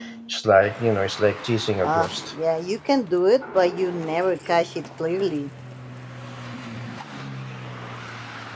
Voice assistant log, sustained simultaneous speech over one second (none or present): none